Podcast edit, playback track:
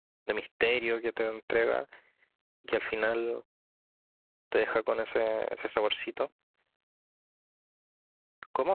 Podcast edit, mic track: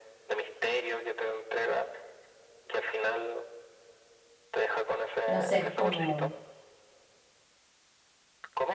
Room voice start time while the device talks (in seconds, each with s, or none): 5.2 s